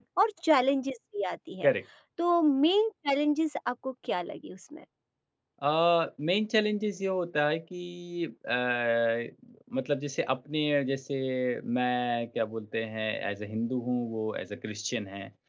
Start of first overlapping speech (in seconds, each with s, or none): none